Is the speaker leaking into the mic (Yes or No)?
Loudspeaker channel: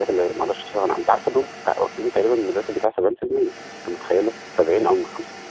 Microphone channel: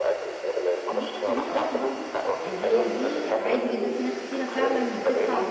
Yes